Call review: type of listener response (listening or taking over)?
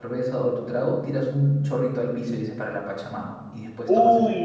taking over